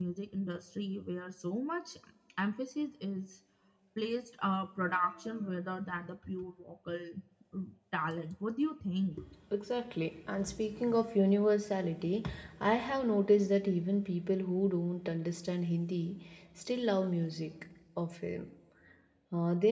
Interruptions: none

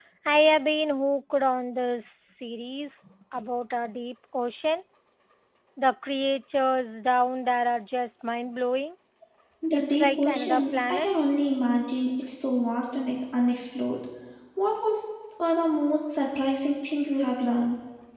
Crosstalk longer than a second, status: present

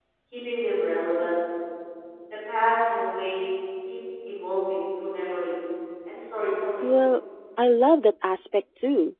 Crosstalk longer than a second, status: none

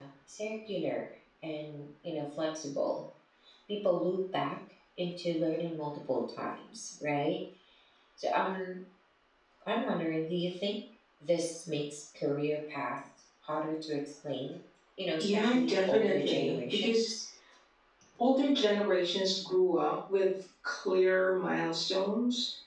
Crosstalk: present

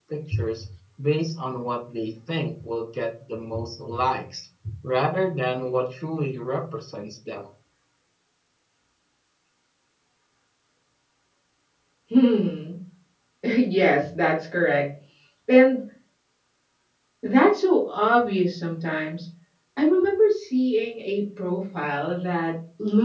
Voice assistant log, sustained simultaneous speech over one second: none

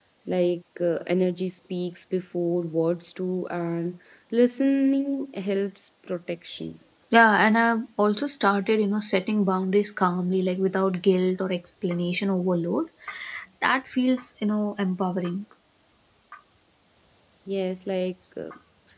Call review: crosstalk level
none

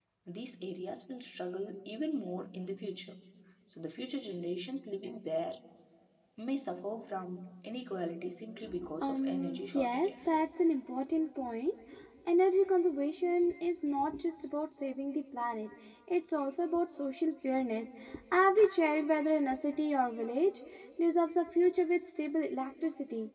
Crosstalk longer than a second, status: present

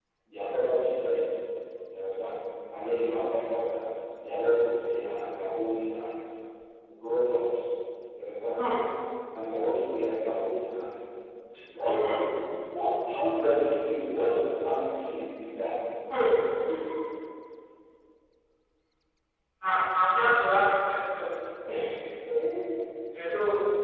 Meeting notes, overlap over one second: none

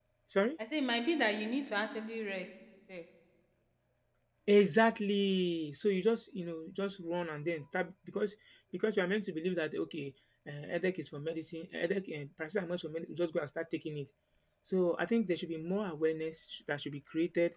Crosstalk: none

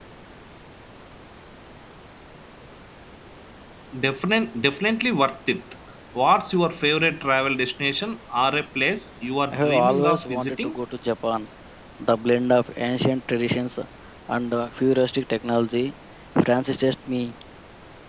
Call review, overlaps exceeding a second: present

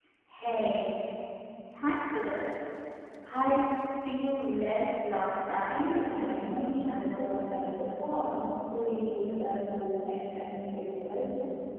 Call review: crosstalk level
present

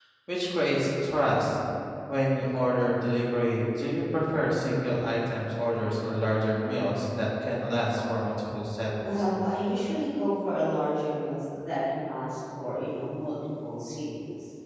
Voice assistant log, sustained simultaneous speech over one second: none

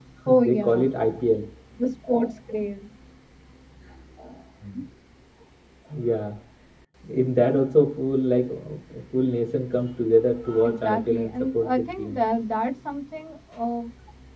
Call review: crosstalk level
present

